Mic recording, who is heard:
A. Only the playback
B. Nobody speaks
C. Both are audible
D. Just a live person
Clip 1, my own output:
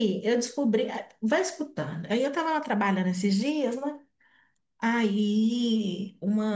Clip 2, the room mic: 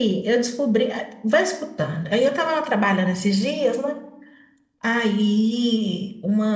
A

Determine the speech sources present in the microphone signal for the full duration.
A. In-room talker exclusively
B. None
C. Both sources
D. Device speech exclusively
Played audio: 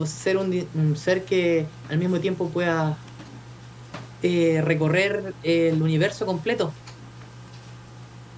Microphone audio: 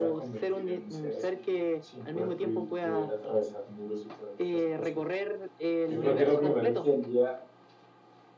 C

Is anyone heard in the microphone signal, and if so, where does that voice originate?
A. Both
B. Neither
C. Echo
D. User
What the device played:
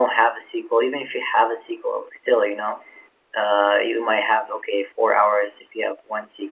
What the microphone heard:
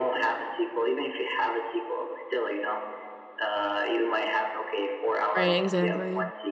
A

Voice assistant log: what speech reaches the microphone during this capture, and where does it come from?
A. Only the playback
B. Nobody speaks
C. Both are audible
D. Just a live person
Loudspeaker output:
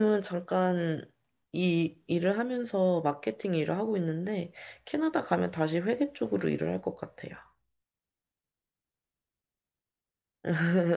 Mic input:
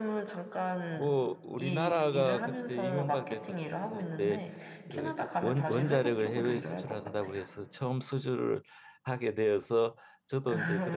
C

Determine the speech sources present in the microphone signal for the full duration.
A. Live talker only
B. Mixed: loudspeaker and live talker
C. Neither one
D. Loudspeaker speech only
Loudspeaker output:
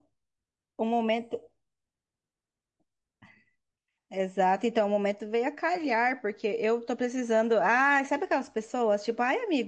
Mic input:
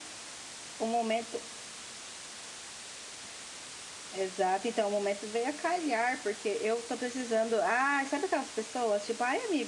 D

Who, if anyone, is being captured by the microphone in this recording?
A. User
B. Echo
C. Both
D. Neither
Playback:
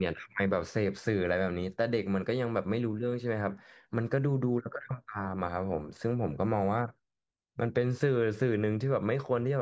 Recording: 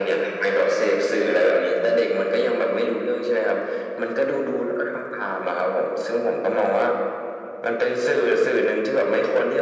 B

